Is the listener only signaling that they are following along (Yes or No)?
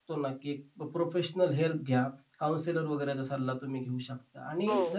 Yes